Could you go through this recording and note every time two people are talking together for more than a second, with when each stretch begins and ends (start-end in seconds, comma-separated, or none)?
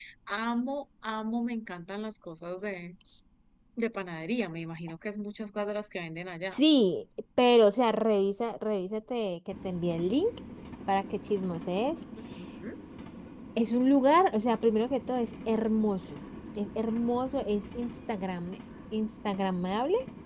none